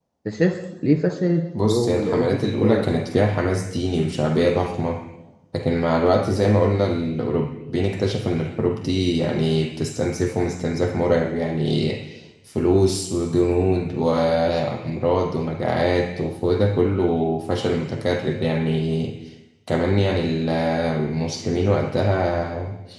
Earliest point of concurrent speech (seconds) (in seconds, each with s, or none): 1.5 s